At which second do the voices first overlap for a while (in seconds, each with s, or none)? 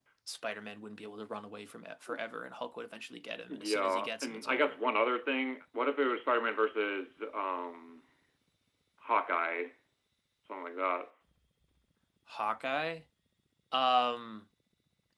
3.5 s